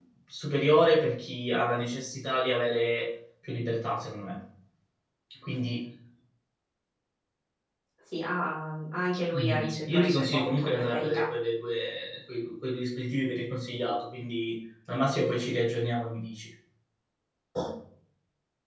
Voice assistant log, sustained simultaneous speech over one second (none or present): present